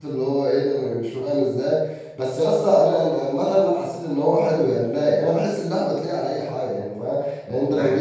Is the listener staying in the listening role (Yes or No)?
Yes